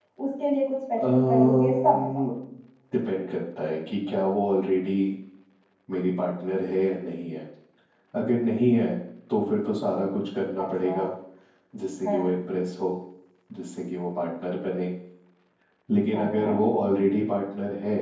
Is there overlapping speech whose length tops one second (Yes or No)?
Yes